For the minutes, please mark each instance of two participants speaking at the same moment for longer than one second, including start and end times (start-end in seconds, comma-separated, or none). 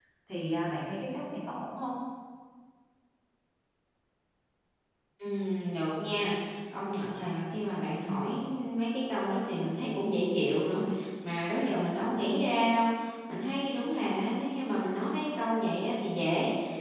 none